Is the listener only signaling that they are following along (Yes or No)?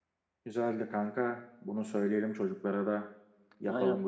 No